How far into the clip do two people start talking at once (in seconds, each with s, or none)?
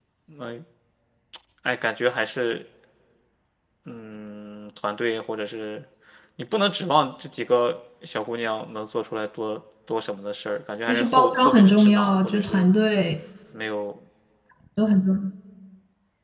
10.9 s